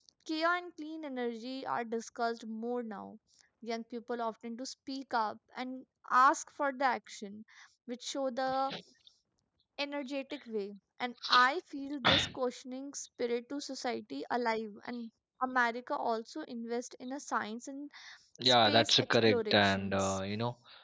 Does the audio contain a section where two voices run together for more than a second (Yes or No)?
Yes